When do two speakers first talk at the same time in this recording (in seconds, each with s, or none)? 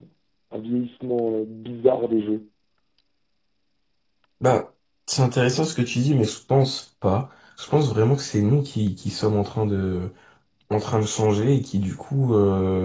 none